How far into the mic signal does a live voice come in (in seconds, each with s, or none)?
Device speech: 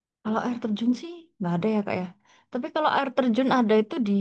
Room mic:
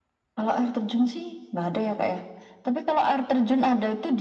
none